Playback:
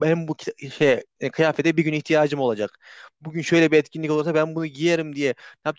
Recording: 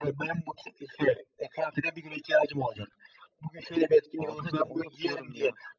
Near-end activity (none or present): present